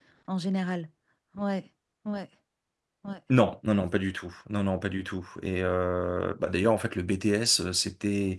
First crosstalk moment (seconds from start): none

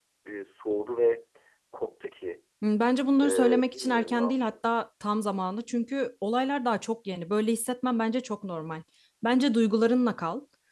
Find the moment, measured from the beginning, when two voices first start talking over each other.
3 s

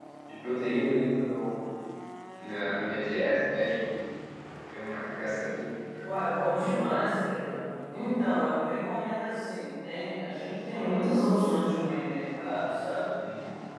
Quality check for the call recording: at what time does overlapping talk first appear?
none

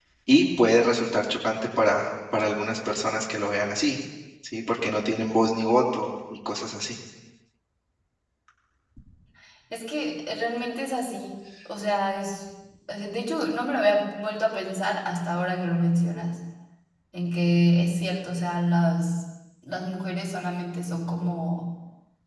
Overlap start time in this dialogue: none

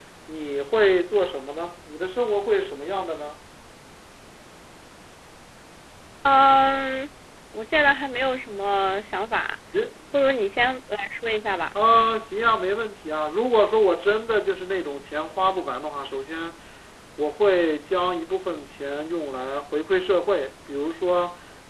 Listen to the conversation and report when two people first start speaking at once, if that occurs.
none

